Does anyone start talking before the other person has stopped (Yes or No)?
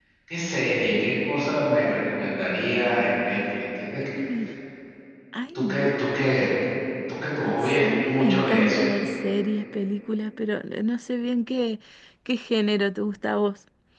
Yes